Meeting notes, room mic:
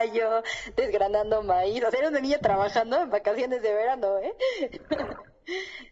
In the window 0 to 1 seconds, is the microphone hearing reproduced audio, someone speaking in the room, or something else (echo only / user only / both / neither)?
echo only